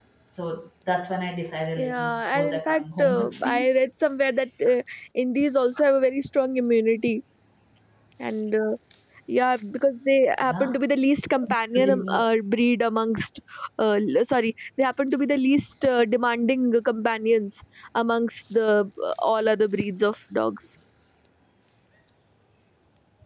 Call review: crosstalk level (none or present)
present